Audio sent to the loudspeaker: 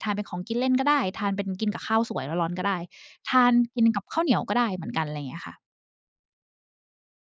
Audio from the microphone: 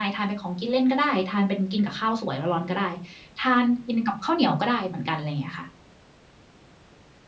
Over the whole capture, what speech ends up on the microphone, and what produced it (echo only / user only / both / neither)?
echo only